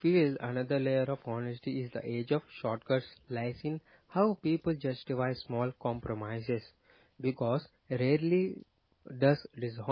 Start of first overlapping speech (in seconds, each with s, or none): none